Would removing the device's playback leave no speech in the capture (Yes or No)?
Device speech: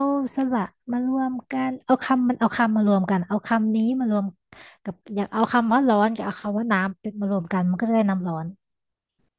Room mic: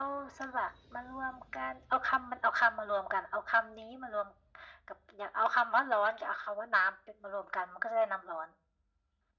Yes